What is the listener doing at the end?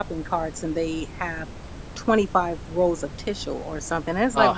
listening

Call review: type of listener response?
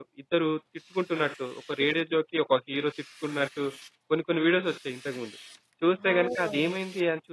listening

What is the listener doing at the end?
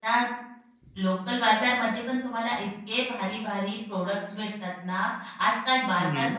listening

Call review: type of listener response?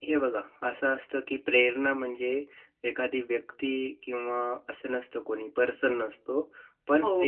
taking over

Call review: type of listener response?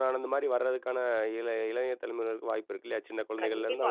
taking over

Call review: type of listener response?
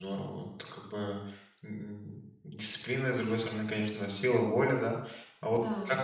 listening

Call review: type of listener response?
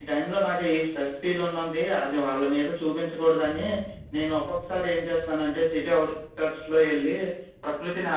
listening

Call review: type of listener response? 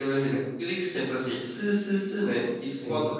listening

